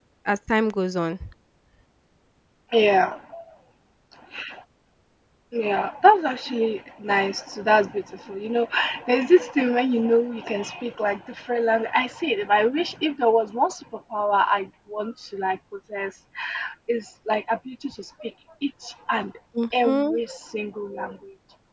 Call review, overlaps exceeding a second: none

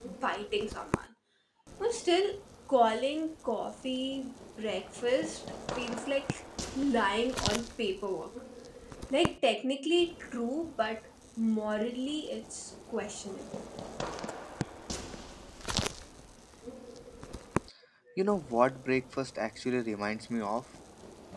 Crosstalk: none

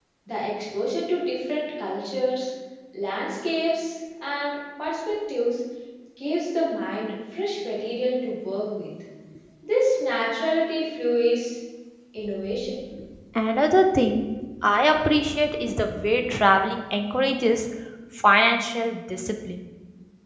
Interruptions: none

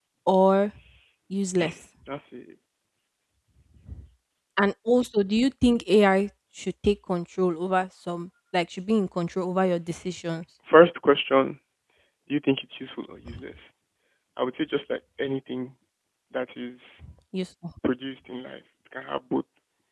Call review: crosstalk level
none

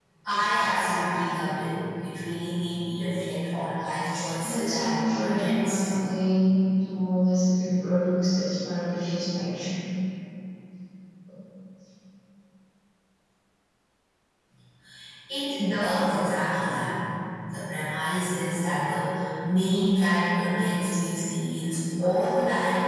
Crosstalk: present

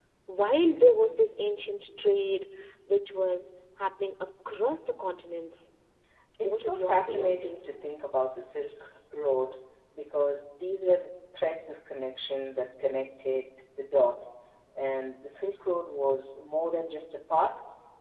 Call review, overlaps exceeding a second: present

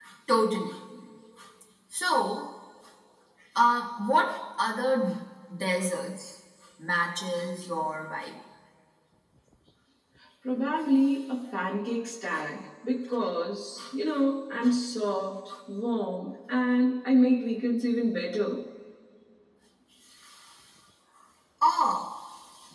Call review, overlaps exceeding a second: none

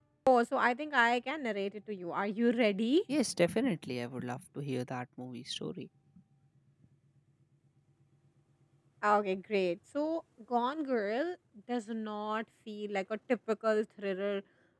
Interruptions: none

